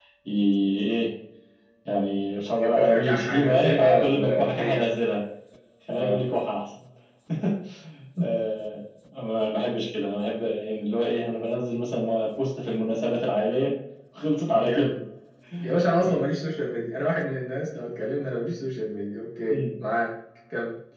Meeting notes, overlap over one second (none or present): present